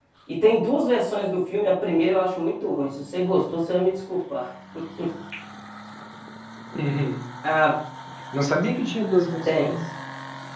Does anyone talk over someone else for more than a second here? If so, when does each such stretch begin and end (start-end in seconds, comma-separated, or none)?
none